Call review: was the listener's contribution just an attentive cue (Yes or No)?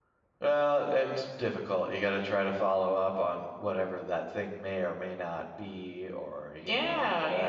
No